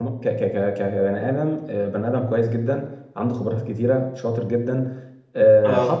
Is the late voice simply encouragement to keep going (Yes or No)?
Yes